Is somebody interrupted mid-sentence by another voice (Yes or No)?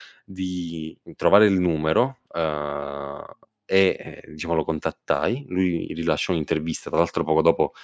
No